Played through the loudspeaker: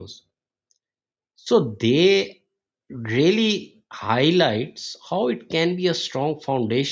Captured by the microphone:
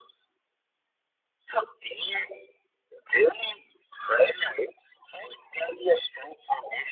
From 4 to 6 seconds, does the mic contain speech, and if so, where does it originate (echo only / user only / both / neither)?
echo only